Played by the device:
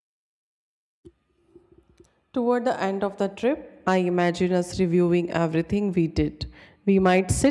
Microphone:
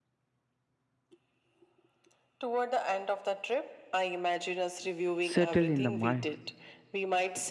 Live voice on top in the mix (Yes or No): Yes